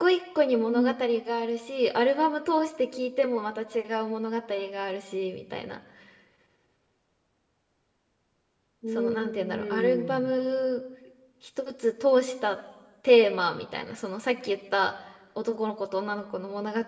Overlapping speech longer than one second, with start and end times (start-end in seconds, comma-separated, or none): 9.0-10.3